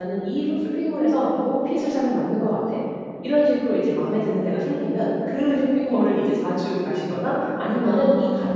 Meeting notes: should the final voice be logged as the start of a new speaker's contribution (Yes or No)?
No